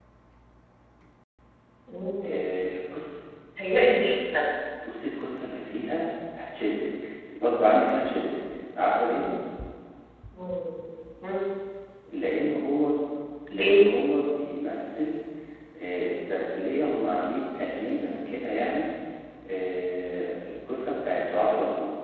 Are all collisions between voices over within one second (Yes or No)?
Yes